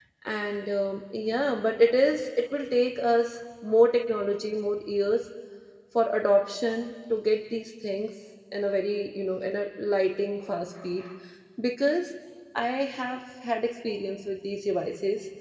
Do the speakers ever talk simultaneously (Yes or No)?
No